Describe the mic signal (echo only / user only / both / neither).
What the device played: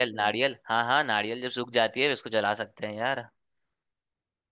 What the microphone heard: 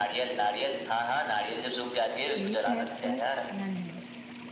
both